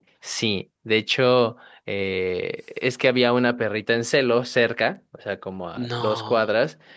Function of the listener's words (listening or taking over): listening